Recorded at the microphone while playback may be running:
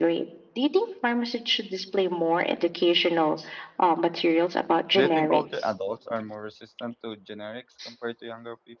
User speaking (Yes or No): Yes